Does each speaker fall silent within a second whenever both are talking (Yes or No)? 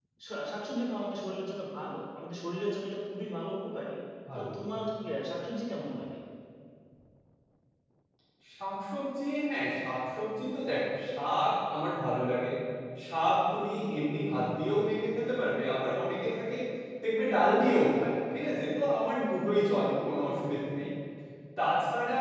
Yes